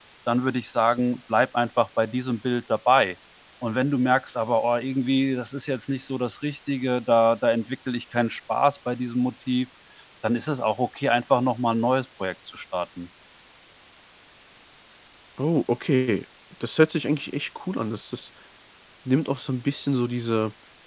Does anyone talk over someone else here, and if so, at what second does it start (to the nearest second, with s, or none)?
none